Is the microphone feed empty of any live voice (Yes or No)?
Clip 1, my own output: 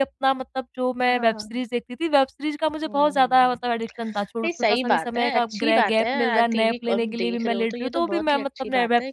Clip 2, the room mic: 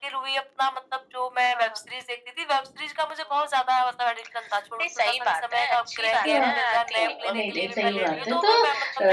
No